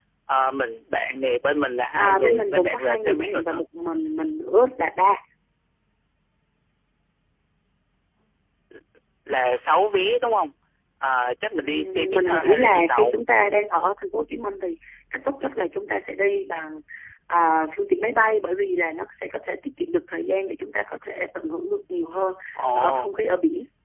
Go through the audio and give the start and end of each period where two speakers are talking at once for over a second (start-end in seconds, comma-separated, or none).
2.0-3.6, 11.6-13.1